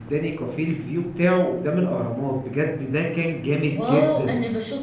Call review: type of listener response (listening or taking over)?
taking over